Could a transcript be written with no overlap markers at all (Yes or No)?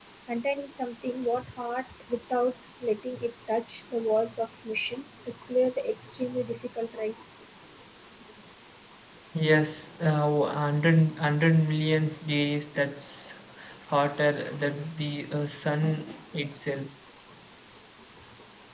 Yes